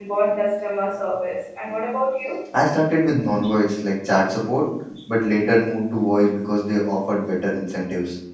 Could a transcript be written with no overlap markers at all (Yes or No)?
Yes